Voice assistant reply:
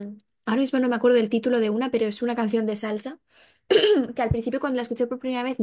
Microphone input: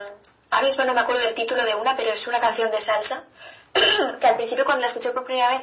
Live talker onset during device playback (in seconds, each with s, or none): none